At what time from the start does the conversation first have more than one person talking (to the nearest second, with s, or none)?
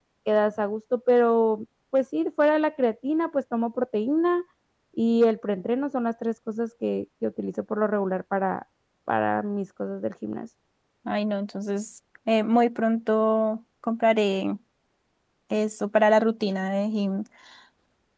none